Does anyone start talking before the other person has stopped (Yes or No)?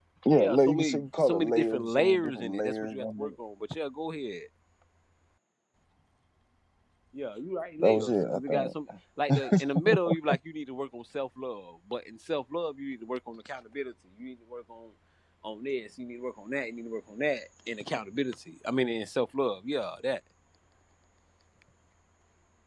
Yes